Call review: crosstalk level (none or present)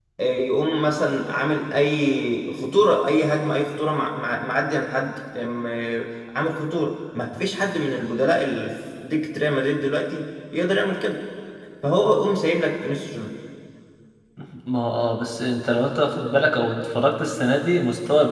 none